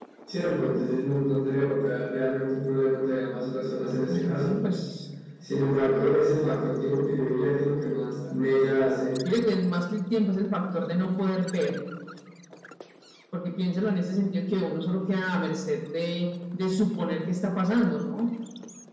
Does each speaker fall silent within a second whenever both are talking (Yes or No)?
Yes